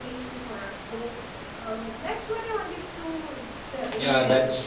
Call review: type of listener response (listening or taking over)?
taking over